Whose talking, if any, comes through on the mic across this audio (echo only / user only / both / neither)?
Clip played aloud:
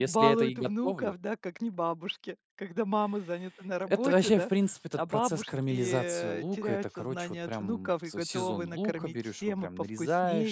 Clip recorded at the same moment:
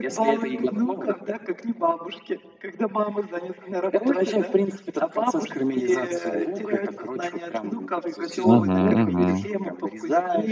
both